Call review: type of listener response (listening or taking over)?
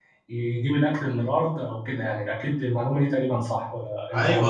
taking over